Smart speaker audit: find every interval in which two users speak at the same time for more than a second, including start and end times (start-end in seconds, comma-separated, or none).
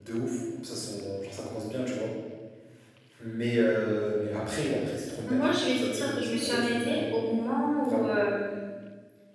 5.3-7.1